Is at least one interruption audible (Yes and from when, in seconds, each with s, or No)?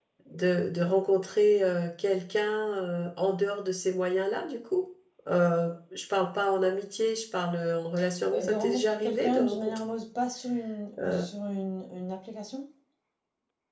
Yes, from 8.3 s